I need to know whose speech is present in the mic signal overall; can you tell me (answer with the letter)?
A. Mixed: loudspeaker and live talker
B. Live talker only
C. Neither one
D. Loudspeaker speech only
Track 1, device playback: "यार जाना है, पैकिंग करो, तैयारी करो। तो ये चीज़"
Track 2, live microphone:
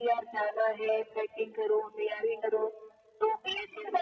D